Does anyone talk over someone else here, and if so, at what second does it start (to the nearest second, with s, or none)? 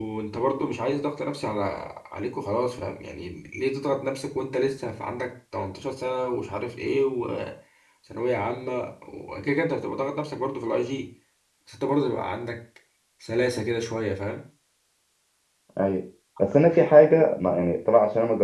none